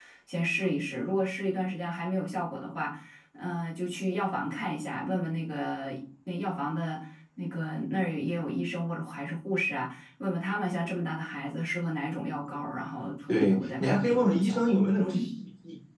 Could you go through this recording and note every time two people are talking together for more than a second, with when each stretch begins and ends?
13.3-15.3

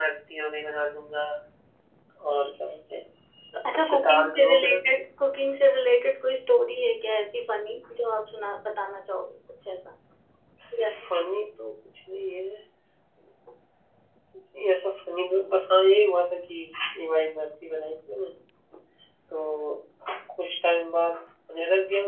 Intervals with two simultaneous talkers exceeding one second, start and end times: 3.8-5.0

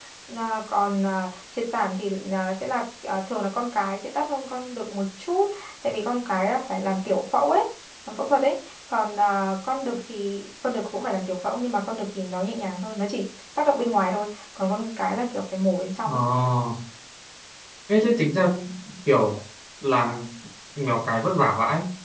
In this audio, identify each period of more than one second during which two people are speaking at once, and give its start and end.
none

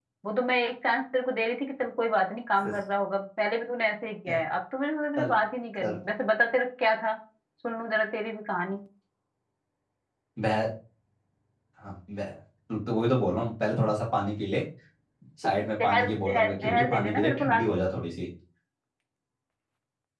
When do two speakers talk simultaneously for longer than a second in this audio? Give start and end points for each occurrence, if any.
15.8-17.8

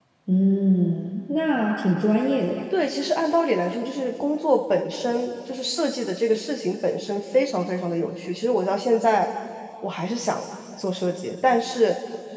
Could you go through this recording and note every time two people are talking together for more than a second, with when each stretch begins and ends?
none

